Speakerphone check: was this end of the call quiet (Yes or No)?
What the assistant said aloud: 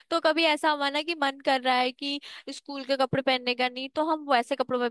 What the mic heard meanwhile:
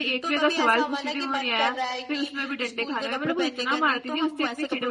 No